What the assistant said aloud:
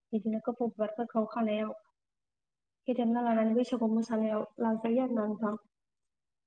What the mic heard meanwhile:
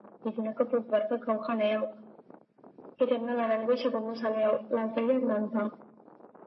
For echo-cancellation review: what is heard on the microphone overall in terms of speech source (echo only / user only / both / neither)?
echo only